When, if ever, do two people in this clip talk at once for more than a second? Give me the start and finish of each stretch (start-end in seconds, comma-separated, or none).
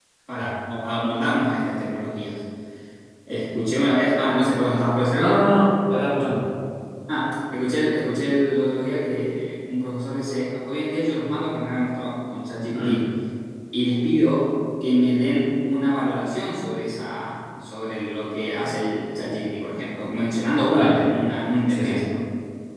none